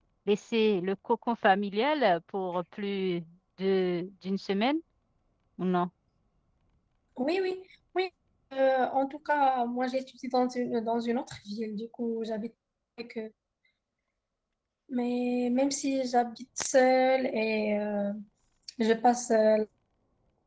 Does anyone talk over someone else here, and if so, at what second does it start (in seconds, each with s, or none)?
none